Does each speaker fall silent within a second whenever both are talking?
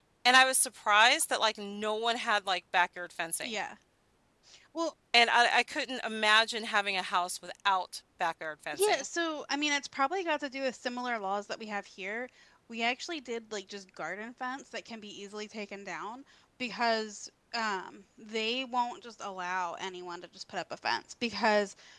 Yes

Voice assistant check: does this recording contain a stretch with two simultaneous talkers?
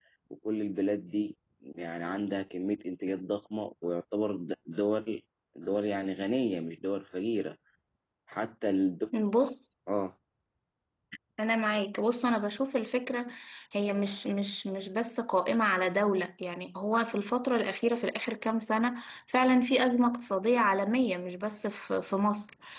No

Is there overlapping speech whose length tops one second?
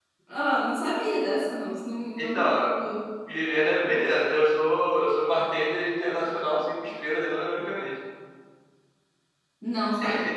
No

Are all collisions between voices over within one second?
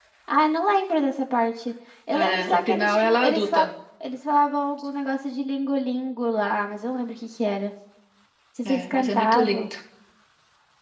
No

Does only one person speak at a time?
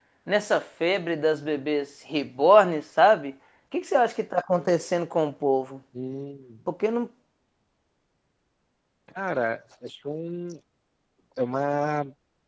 Yes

